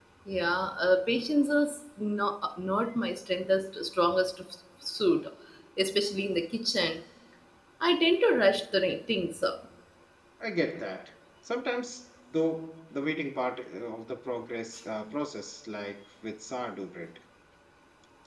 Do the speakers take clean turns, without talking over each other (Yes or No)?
Yes